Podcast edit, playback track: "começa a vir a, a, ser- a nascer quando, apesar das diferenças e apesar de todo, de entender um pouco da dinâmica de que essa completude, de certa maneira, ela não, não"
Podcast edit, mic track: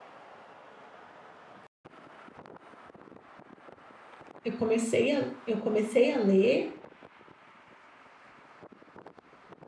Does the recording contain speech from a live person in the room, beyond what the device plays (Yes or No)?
Yes